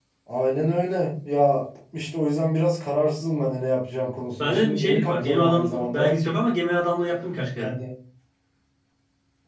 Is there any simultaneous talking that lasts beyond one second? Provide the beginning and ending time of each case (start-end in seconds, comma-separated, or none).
4.4-6.2